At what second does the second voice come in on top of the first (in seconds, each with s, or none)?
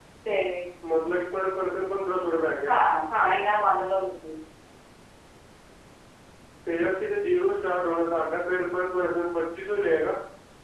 none